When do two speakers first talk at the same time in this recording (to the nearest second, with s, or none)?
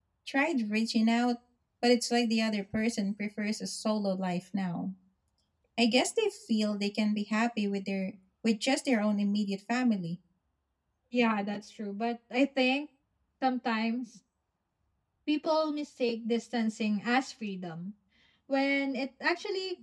none